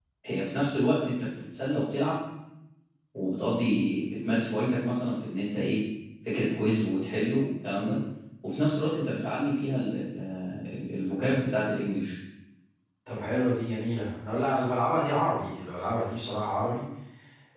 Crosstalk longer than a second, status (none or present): none